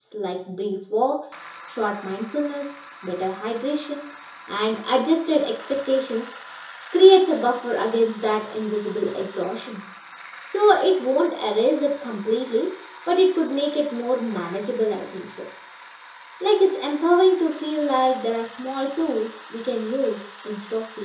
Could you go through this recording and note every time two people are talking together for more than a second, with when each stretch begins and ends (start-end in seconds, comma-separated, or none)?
none